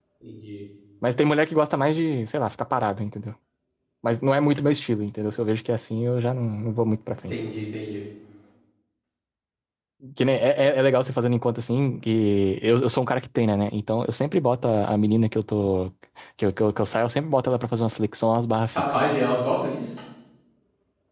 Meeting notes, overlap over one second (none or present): none